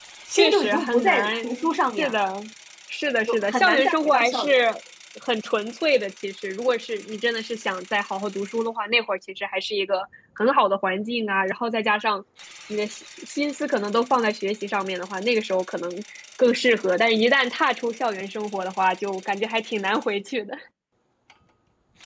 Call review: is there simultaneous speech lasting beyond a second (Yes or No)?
Yes